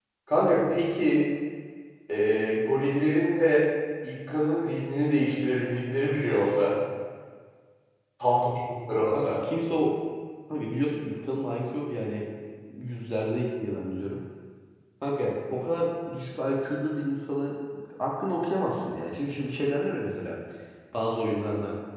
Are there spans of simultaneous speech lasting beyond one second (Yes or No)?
No